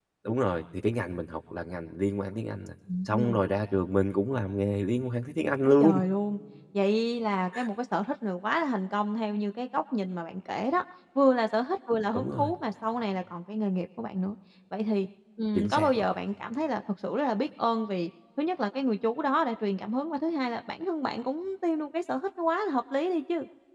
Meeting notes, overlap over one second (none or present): none